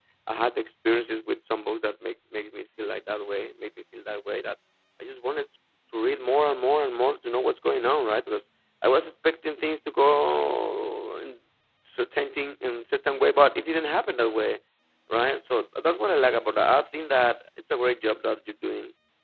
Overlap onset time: none

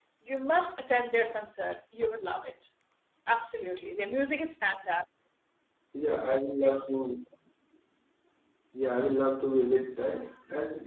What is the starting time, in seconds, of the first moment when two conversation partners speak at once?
none

